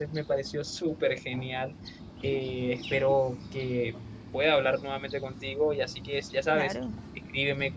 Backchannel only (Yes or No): Yes